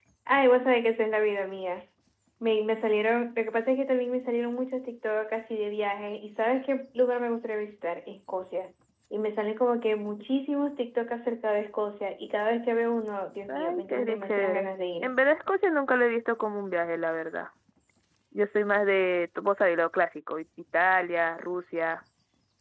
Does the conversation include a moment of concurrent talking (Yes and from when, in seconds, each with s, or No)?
Yes, from 13.5 s